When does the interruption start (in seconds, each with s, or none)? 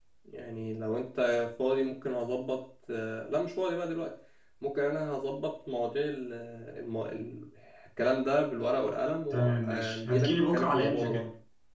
9.3 s